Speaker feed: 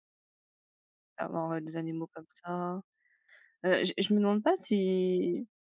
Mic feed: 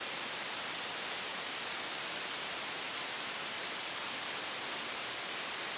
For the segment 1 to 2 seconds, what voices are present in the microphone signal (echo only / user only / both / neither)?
neither